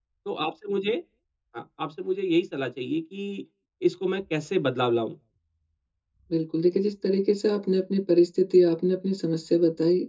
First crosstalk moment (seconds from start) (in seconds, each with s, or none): none